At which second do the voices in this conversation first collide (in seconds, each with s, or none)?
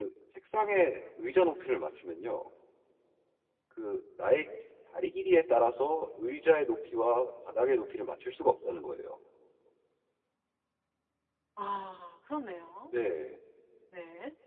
none